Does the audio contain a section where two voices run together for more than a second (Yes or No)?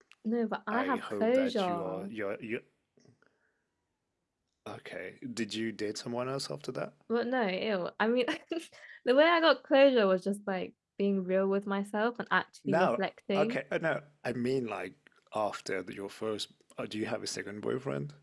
Yes